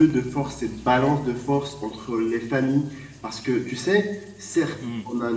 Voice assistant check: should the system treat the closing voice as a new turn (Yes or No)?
No